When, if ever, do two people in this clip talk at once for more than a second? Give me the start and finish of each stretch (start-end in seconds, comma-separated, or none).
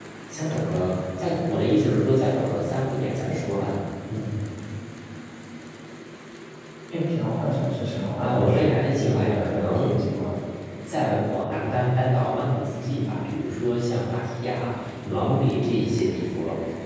8.2-10.0